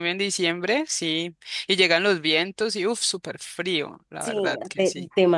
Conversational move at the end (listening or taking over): taking over